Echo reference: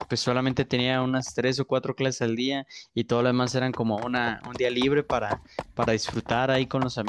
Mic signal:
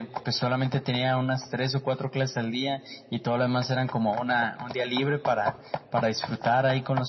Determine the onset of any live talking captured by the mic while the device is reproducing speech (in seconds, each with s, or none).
none